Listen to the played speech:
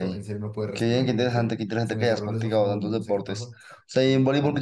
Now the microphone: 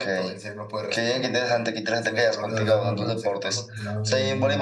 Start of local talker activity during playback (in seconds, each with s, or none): 2.5 s